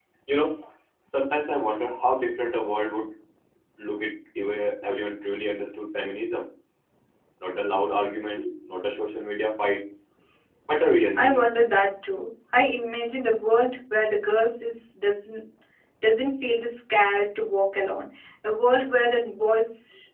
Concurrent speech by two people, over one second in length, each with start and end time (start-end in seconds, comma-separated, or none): none